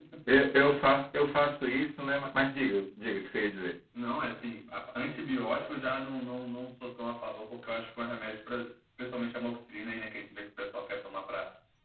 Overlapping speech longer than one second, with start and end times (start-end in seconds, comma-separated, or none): none